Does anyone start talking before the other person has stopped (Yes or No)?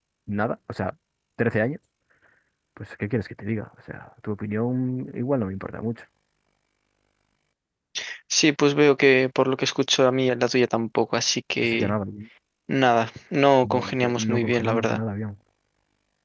Yes